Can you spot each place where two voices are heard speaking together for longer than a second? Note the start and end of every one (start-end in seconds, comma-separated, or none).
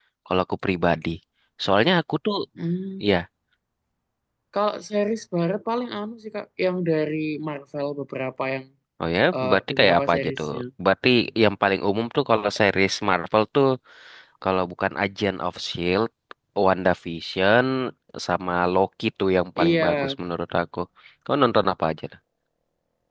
9.4-10.6